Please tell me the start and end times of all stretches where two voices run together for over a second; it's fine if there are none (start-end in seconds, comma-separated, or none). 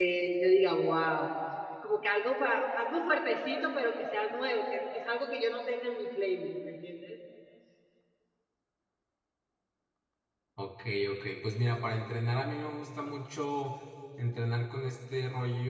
none